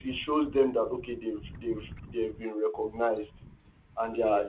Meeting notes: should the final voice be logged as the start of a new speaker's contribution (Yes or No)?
No